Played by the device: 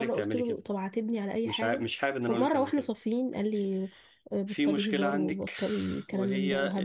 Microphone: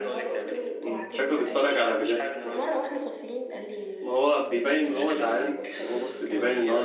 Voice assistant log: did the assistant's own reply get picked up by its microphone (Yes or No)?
Yes